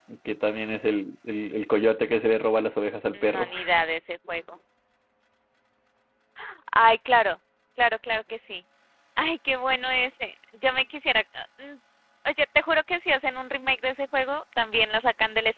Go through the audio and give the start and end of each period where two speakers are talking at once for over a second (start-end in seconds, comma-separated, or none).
none